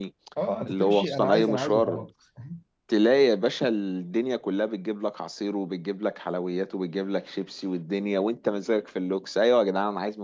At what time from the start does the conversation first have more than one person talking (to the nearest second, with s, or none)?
1 s